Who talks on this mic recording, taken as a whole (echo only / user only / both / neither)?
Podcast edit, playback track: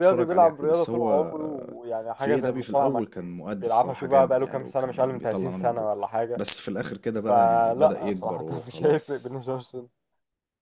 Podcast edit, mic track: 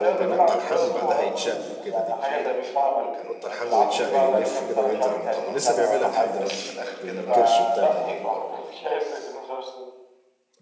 both